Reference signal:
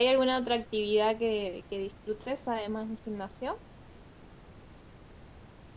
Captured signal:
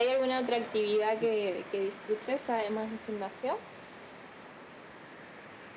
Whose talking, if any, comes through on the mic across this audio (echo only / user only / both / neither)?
echo only